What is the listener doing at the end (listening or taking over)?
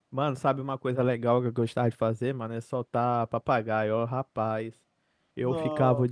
listening